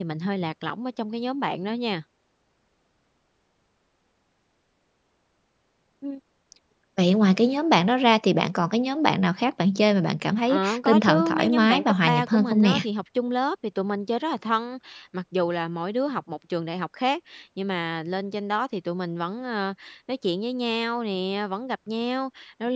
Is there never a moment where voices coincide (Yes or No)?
No